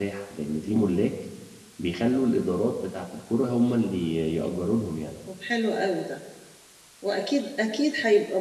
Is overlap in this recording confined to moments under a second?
Yes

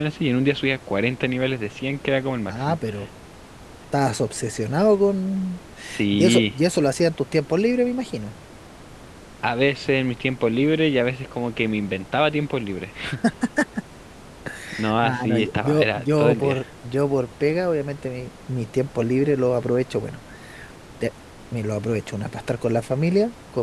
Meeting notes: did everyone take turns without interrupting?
No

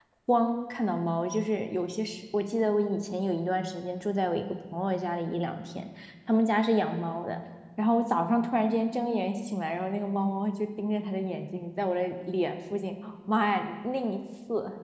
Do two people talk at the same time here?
No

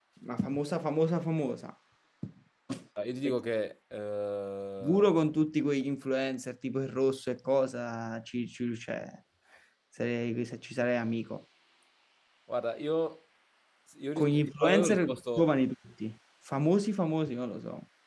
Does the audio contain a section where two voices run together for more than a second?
Yes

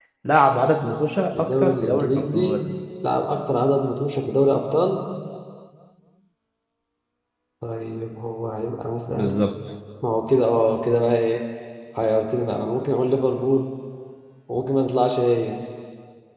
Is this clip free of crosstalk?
No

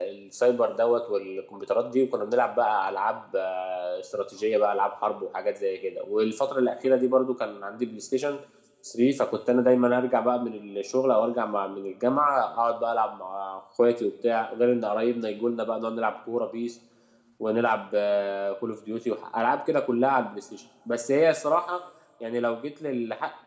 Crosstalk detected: No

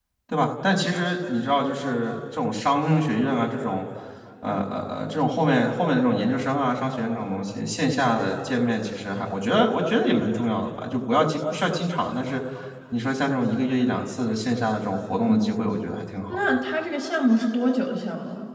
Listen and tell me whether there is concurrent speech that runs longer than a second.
No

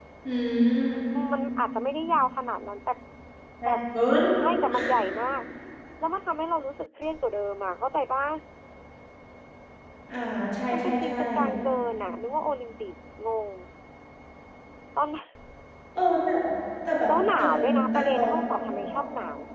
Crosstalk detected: Yes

